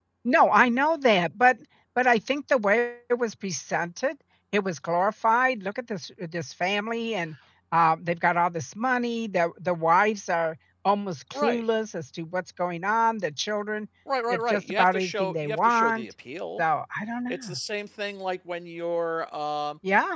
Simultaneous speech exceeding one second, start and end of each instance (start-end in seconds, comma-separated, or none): 14.3-16.0